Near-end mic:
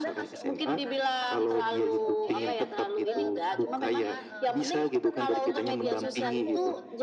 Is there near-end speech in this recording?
Yes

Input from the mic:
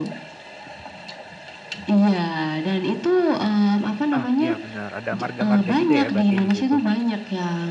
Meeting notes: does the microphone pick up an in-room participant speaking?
Yes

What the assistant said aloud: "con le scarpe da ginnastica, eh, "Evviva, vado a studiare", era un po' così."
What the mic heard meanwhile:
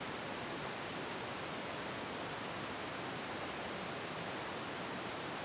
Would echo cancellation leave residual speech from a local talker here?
No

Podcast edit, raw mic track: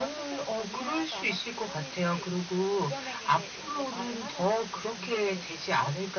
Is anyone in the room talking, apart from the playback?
No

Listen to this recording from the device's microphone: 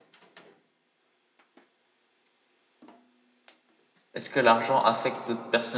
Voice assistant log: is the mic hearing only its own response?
No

